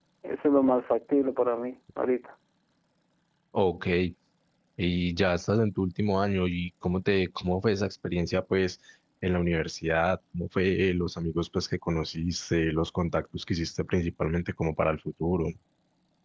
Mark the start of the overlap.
none

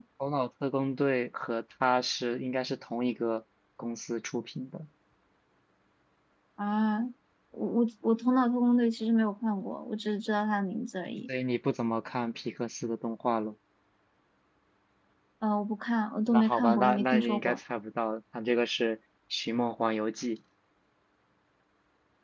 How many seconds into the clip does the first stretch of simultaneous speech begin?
16.3 s

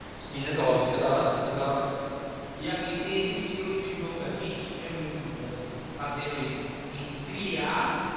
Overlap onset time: none

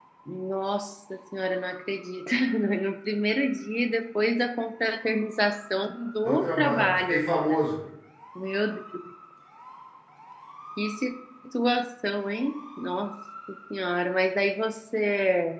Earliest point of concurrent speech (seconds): 6.2 s

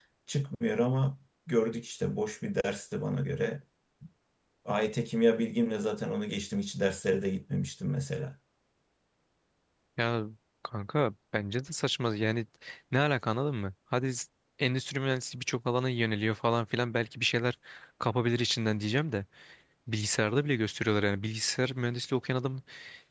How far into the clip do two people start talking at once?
none

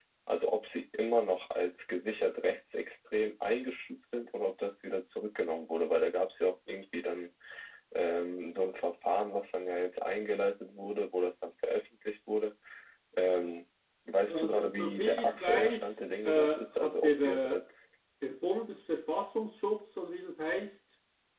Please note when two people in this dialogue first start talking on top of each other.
14.3 s

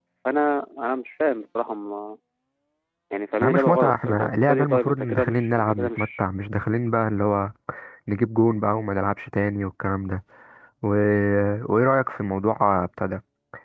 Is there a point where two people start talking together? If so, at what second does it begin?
3.4 s

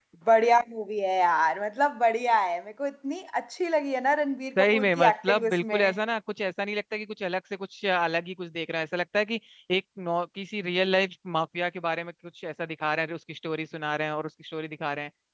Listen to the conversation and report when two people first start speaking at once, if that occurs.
4.6 s

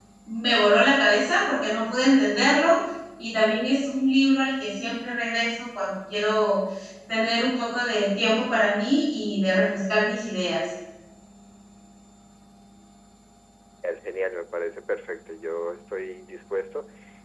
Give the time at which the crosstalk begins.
none

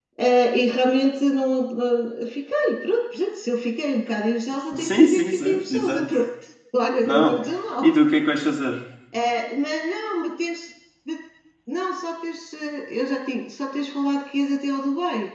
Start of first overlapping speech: 4.8 s

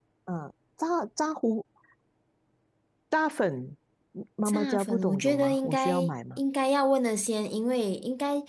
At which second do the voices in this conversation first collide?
4.4 s

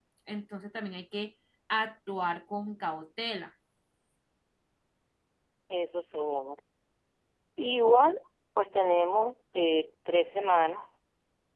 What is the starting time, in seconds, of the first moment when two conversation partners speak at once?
none

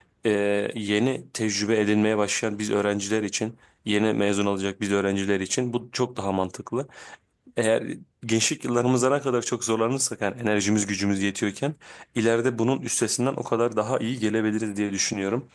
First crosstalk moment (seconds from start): none

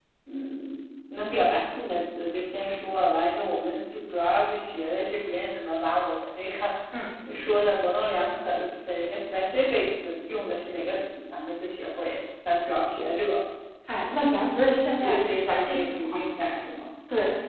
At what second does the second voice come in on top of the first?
15.0 s

